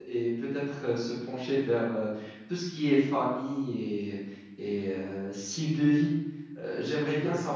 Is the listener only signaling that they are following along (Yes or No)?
Yes